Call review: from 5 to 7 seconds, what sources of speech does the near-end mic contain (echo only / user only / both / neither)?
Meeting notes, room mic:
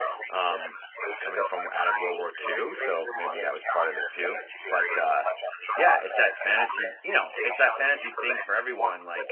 both